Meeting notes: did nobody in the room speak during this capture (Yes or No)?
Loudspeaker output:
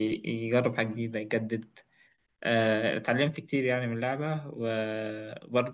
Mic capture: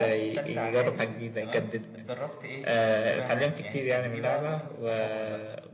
No